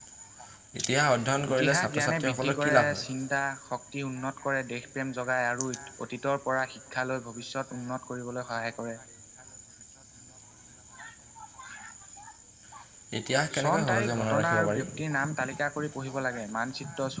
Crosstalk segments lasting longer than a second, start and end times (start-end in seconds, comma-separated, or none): 1.5-3.0, 13.6-14.9